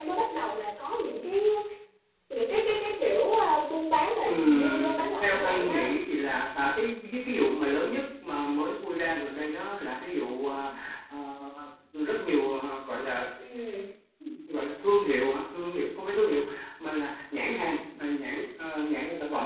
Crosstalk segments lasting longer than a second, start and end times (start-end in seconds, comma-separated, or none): 4.3-5.9